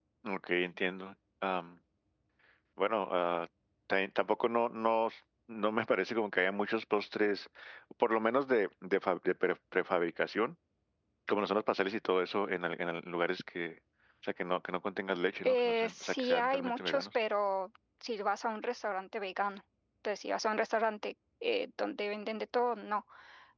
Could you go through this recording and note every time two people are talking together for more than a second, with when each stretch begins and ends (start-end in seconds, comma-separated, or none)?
15.4-17.1